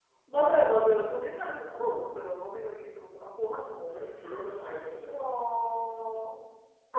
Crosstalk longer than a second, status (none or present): none